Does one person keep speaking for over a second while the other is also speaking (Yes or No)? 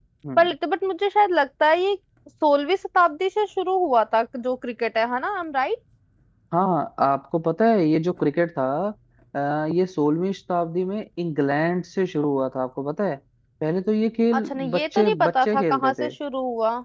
Yes